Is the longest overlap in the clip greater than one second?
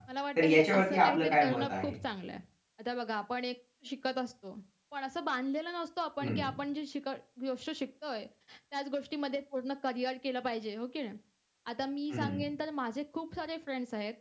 Yes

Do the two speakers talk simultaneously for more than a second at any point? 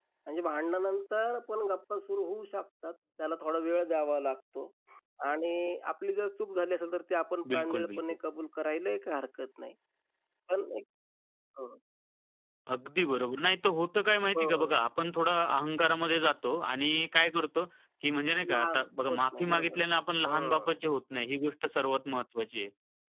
Yes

